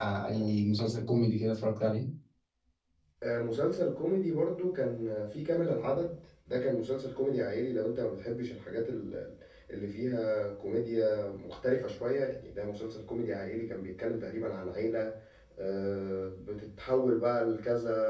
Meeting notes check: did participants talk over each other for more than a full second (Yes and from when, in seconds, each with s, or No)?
No